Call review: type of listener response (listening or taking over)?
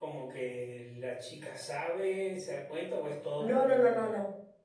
taking over